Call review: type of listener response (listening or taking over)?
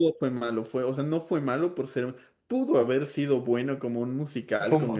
listening